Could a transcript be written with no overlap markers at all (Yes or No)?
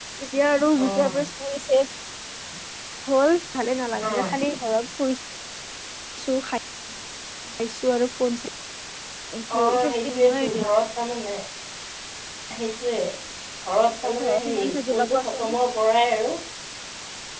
No